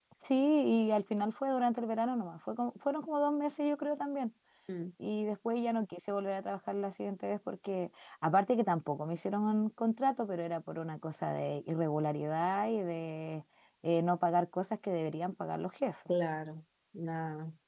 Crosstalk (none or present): none